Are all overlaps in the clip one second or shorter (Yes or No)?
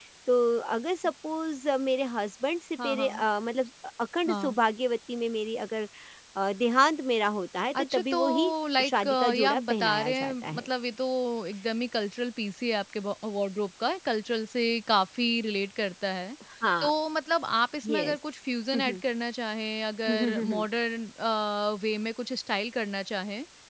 No